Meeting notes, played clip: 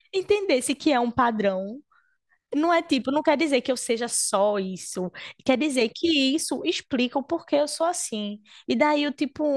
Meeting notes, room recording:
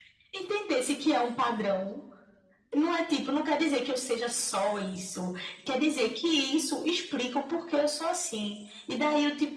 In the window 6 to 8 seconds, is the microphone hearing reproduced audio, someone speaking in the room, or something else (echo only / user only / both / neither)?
echo only